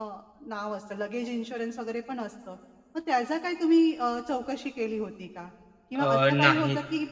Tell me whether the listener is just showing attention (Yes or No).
Yes